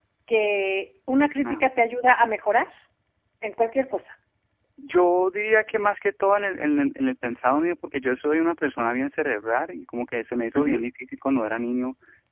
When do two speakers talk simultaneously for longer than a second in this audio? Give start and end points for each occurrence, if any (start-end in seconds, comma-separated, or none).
none